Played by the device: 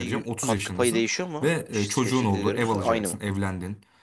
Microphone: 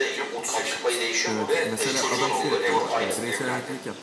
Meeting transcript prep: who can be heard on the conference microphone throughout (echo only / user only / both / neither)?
both